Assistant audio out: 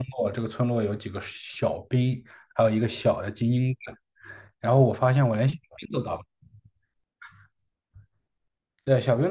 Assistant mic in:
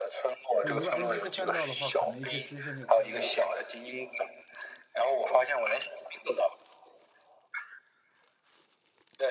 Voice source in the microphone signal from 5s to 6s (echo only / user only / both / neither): echo only